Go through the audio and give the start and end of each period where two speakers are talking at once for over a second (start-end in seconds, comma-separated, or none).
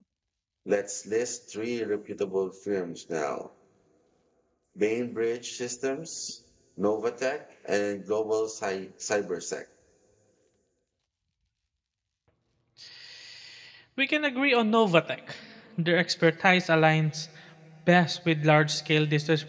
none